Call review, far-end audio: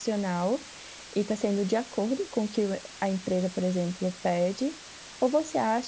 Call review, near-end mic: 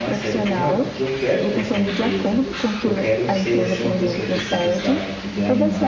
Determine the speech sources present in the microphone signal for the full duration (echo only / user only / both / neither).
both